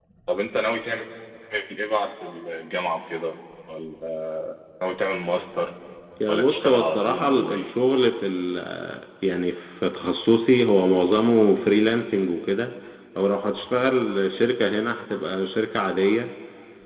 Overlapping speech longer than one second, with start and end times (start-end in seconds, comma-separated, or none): 6.3-7.7